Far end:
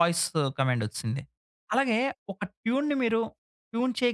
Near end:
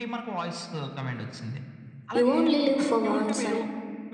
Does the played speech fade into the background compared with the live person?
Yes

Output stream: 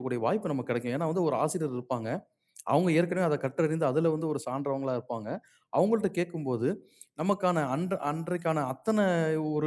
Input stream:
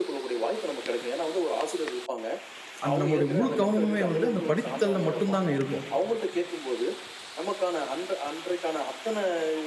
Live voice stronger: Yes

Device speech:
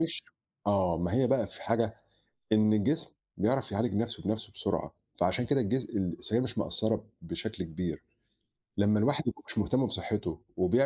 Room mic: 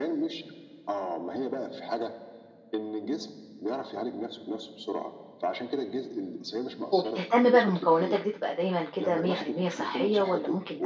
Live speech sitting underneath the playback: No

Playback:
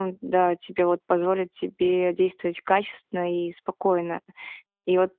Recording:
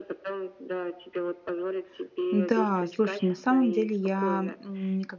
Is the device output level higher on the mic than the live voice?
No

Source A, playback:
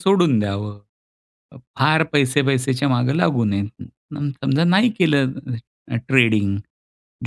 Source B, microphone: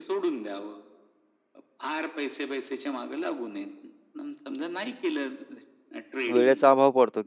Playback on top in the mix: No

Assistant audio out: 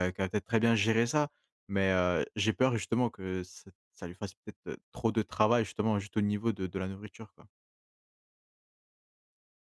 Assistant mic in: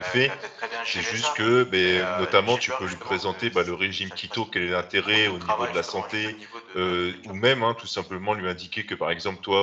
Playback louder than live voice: No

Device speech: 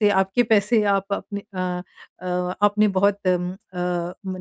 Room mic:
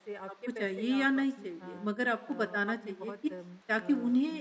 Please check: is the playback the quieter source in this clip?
Yes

